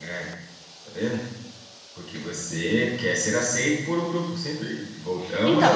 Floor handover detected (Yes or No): Yes